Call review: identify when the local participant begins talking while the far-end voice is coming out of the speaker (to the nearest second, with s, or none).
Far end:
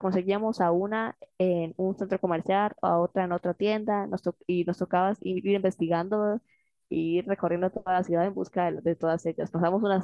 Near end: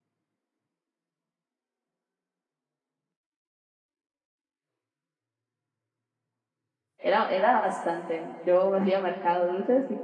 7 s